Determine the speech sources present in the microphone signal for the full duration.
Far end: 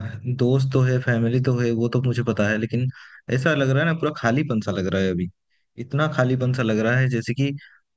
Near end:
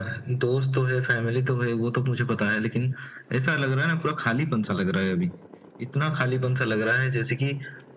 echo only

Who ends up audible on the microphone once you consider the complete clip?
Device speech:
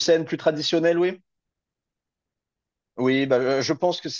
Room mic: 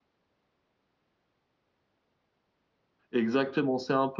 user only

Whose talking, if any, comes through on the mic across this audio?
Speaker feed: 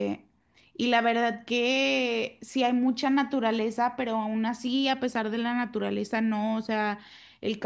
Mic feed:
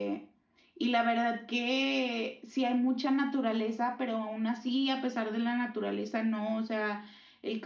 echo only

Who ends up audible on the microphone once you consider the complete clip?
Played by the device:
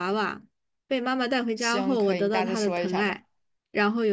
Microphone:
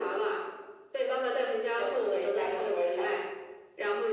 echo only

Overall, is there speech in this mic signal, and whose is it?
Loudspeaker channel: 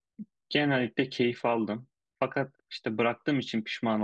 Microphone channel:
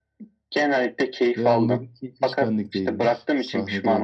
both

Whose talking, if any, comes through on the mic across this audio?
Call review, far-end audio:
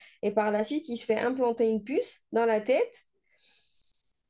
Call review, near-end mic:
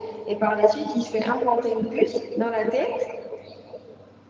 echo only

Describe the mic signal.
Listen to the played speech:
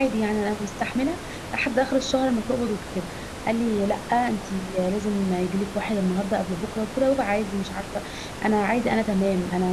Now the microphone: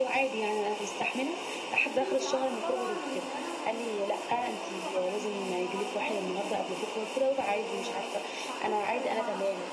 both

